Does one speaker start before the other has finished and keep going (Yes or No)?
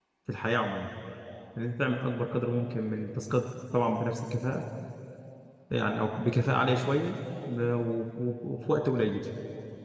No